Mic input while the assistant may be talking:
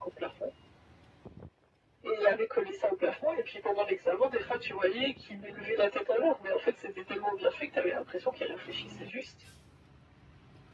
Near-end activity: none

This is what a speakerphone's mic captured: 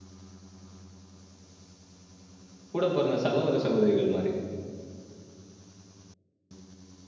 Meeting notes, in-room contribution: present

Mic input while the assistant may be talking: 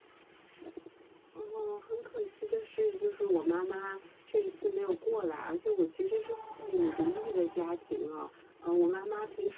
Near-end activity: present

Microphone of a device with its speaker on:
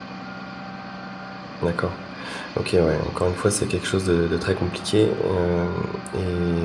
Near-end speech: present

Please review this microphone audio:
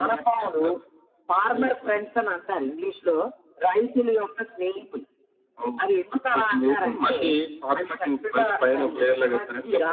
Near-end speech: present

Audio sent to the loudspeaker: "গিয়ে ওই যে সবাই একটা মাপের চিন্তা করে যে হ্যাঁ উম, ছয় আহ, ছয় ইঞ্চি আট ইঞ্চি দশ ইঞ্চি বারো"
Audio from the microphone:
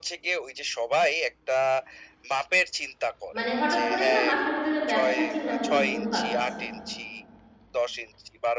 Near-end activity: present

